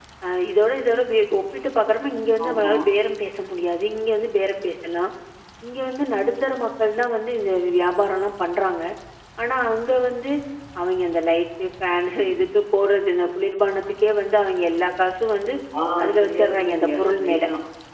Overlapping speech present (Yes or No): Yes